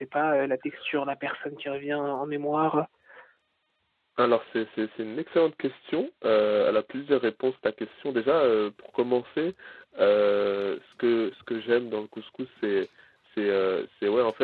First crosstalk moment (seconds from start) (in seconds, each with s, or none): none